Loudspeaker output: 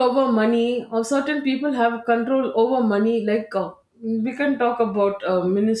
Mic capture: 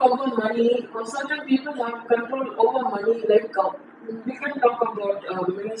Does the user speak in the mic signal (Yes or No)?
No